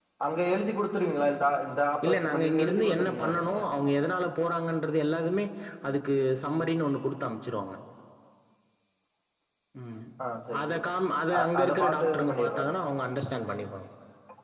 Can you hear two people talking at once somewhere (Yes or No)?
Yes